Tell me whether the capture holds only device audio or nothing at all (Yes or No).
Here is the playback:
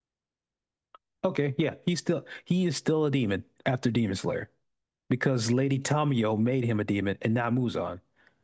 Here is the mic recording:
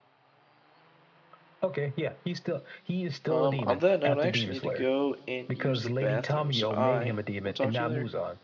No